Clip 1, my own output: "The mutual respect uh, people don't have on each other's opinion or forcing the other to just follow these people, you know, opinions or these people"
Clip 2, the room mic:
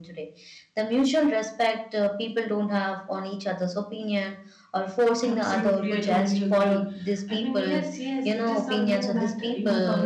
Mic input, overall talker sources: both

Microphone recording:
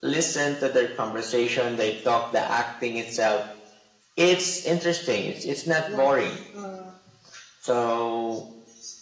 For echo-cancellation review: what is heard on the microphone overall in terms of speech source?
both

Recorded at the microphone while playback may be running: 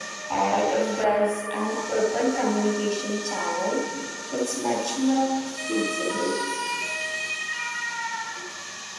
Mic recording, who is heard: echo only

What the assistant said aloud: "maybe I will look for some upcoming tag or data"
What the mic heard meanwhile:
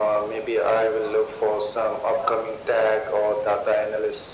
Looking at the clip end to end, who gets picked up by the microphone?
echo only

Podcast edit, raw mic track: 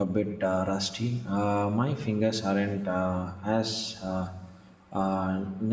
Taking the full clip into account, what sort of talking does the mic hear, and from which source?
user only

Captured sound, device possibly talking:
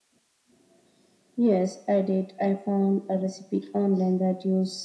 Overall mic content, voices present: echo only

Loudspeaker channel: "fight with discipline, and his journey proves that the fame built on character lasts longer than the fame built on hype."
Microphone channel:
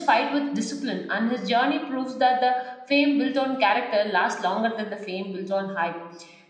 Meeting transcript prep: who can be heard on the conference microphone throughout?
echo only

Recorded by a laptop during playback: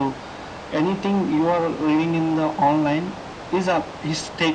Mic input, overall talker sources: echo only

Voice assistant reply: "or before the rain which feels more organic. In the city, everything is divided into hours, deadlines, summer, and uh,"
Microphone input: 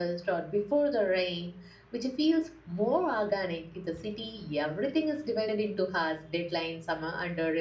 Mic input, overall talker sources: echo only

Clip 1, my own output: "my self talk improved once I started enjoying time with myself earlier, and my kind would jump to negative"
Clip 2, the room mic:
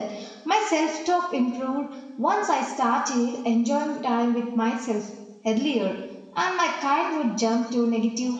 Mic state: echo only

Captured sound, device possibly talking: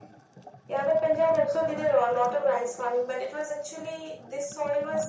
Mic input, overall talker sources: echo only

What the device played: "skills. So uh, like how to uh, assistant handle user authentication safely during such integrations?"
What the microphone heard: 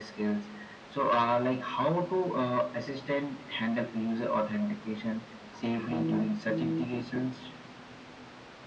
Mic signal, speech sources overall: echo only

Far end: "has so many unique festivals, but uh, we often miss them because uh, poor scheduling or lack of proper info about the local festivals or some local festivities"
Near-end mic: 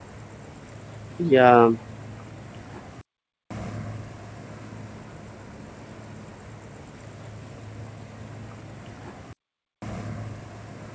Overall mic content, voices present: user only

